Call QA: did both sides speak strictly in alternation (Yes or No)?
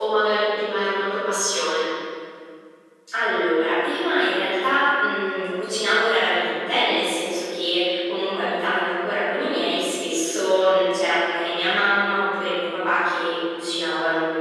Yes